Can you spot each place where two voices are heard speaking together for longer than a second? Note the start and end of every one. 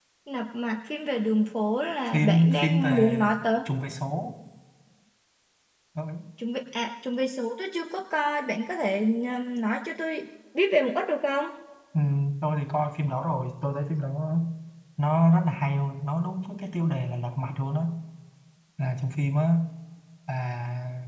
2.1-3.4

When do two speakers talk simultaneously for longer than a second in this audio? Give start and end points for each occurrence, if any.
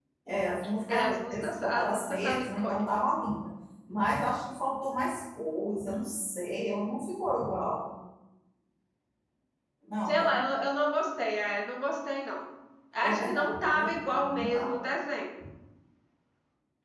0.9-3.1, 13.0-14.7

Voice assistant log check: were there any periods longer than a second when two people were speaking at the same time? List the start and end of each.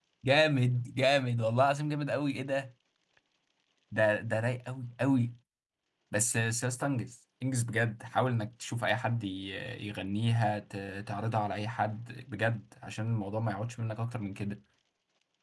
none

